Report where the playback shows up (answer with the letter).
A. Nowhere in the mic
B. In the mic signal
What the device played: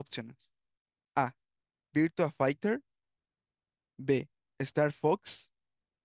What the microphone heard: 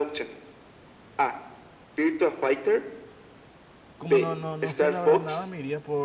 B